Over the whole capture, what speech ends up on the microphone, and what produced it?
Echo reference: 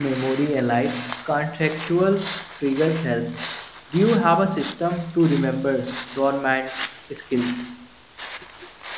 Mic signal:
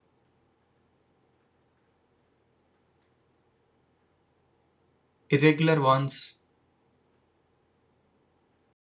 user only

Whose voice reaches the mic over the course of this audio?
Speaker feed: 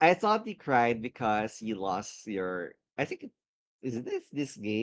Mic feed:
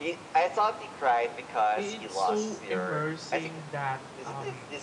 both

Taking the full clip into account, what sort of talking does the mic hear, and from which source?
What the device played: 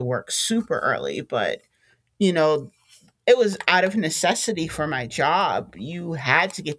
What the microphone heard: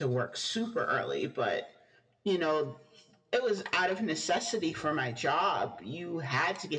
echo only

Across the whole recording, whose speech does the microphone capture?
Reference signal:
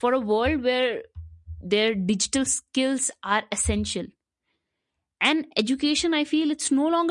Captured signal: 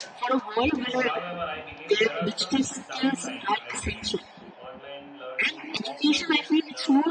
both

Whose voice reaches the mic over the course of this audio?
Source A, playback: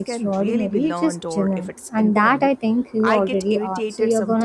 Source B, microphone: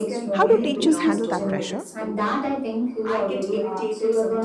both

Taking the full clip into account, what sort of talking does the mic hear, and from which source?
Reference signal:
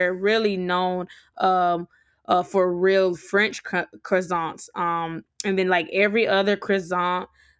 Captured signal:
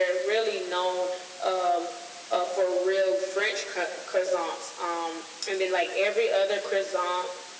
echo only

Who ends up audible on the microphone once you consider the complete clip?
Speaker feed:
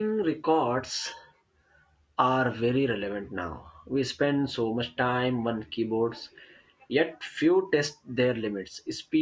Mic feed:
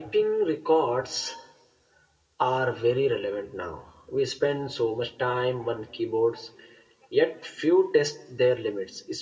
echo only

